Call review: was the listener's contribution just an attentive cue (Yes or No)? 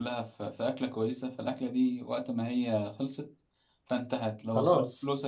Yes